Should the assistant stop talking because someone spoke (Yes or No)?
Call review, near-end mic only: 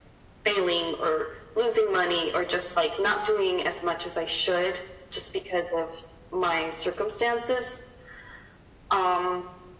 No